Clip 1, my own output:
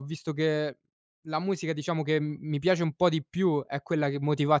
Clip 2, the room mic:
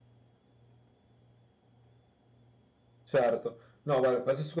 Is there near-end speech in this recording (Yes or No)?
Yes